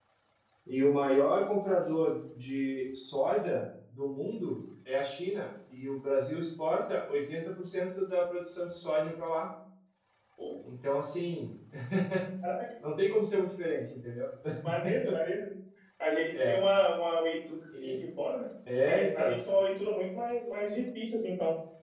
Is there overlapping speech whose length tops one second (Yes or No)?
No